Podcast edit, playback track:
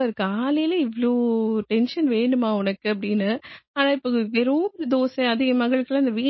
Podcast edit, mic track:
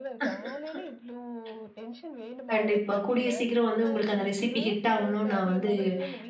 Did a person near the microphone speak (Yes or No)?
Yes